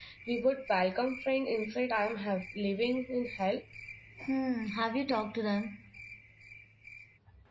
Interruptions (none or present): none